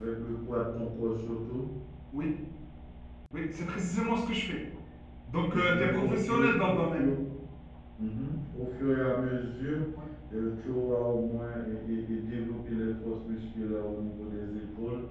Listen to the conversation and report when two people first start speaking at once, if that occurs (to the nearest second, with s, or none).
6 s